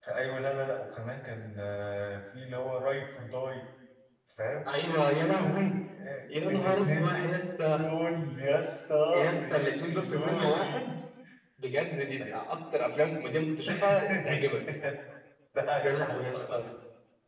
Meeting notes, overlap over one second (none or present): present